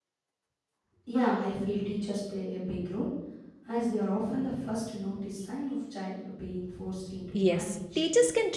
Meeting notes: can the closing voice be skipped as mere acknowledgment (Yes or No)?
No